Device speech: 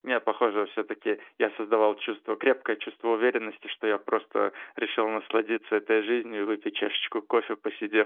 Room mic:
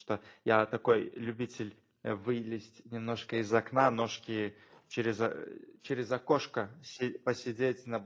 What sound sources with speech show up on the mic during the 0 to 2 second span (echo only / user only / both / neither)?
user only